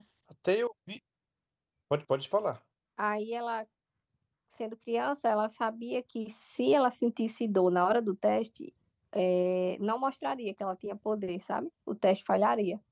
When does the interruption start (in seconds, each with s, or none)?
none